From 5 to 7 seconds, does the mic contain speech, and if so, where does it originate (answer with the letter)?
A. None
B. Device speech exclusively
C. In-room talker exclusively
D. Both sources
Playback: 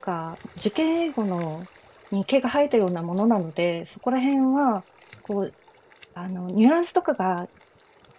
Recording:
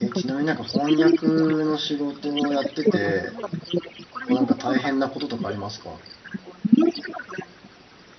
D